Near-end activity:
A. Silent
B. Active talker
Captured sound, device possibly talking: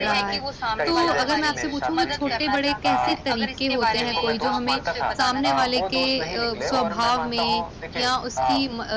B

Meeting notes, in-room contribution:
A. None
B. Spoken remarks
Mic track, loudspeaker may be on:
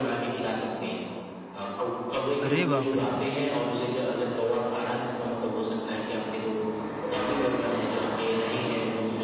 B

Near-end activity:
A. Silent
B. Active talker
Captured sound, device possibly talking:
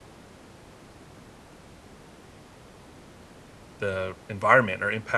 B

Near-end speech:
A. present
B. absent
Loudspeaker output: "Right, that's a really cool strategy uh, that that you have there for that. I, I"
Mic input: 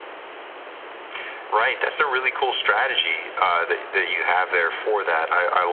B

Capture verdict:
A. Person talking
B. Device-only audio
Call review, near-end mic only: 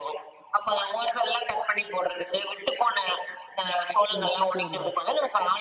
A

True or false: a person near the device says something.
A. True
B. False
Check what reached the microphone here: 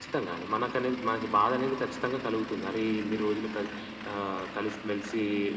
B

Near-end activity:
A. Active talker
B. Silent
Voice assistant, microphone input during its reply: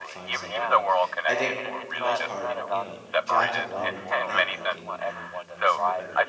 A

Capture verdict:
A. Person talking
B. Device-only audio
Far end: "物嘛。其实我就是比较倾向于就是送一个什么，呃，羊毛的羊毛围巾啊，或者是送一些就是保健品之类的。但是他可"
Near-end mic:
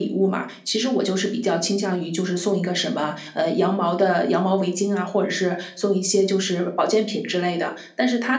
B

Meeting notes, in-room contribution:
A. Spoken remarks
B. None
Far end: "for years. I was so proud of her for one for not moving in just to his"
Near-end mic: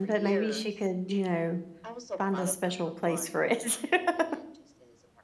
A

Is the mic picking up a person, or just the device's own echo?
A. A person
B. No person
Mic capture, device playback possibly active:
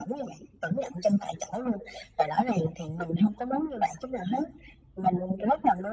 B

